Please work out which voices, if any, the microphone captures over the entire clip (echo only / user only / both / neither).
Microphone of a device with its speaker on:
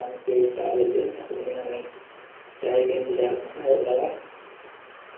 echo only